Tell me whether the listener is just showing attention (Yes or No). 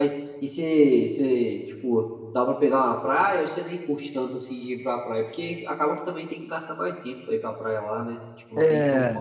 No